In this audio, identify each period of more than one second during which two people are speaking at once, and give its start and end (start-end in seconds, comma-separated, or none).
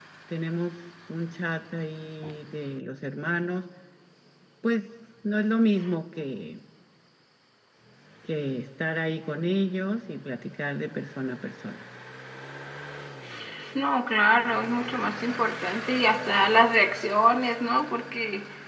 none